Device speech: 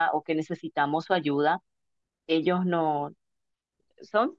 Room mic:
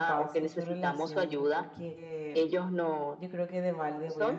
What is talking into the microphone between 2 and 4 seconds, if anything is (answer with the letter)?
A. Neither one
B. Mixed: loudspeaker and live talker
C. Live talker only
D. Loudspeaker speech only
B